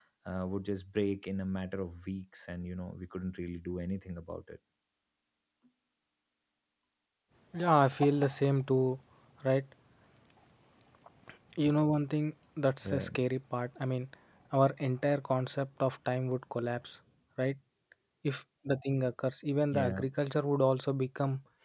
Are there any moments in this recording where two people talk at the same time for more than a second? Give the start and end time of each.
none

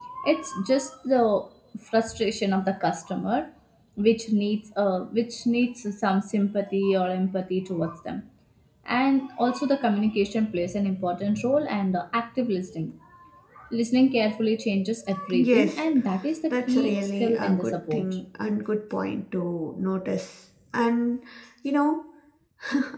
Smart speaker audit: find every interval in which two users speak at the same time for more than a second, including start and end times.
16.5-18.1

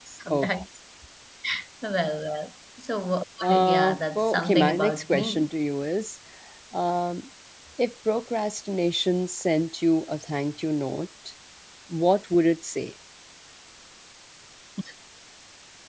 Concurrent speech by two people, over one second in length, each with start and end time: 3.4-5.5

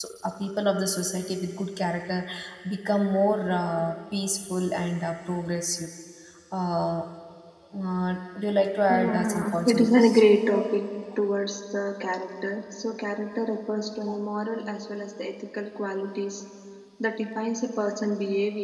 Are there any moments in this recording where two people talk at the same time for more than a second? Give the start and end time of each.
8.9-10.2

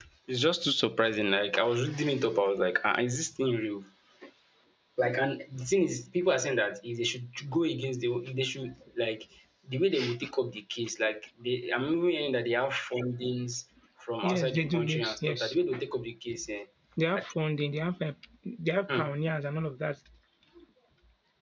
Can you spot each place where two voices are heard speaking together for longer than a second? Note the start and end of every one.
14.2-15.6

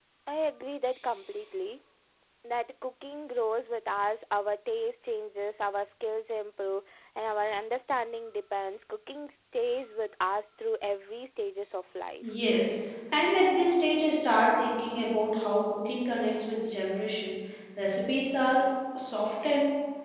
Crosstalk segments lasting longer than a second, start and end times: none

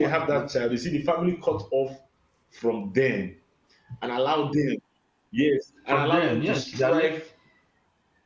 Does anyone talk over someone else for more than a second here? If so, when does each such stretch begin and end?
5.9-7.1

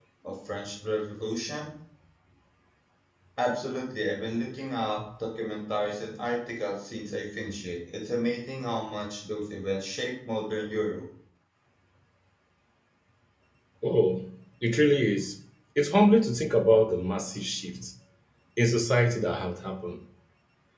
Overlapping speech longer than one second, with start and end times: none

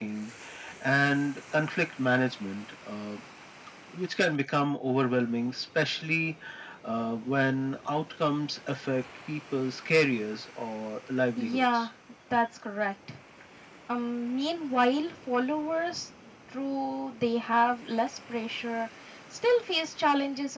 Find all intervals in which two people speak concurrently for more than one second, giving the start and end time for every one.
none

